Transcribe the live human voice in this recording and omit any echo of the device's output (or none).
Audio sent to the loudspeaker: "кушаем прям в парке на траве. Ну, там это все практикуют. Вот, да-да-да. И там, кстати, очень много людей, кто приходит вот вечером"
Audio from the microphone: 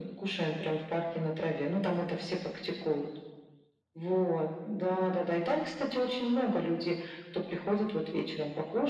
none